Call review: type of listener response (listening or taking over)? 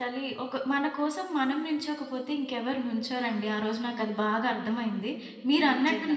listening